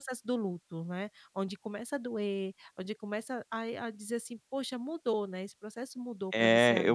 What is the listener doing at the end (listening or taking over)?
taking over